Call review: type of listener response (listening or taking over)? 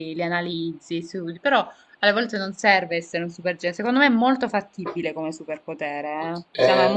taking over